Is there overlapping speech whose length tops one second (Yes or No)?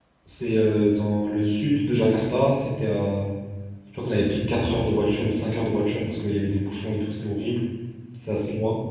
No